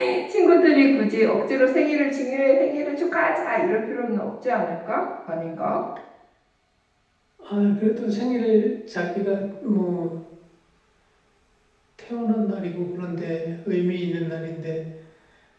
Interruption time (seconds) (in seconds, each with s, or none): none